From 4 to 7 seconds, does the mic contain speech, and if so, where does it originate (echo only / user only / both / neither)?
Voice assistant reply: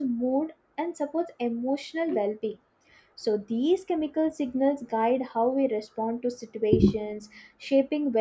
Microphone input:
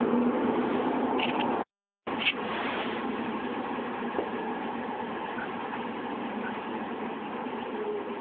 neither